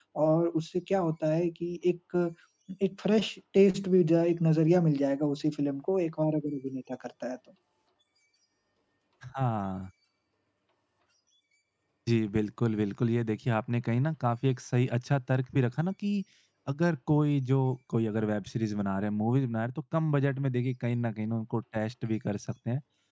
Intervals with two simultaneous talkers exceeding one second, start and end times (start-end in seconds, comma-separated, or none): none